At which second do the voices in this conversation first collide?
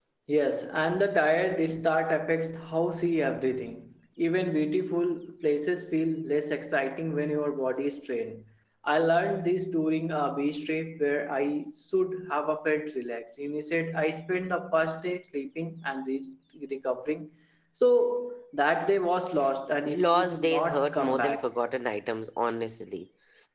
19.9 s

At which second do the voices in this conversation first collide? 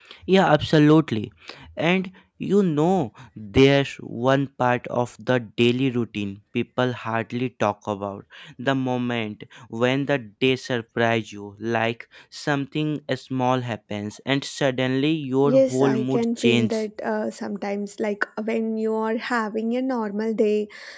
15.4 s

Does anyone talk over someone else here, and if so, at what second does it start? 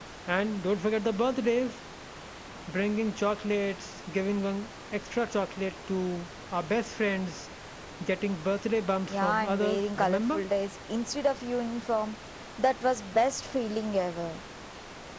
9.1 s

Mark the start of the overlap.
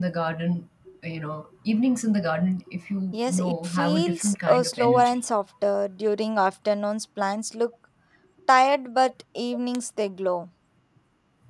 3.1 s

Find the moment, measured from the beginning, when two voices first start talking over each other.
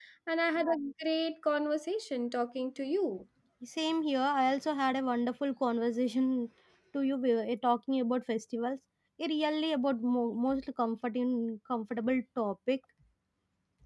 none

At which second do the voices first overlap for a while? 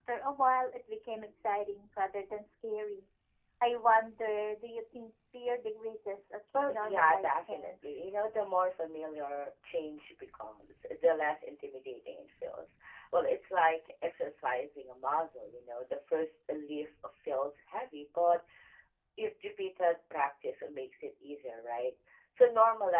6.5 s

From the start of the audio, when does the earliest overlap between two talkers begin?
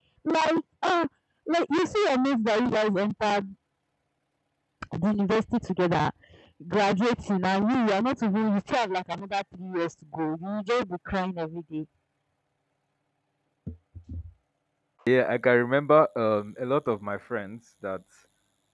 none

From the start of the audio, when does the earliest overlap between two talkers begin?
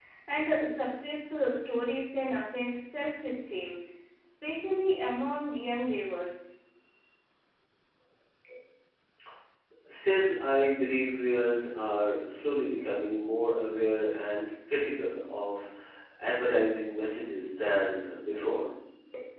none

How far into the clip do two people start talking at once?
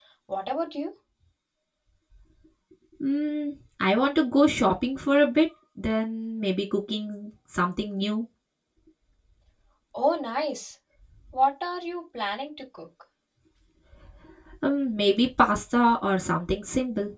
none

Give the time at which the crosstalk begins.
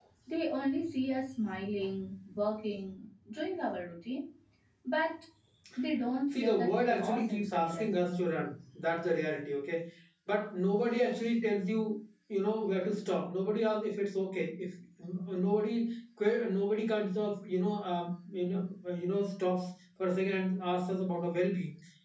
6.4 s

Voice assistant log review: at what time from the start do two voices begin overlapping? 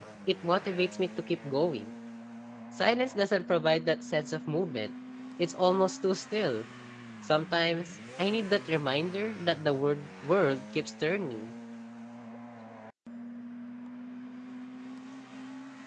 none

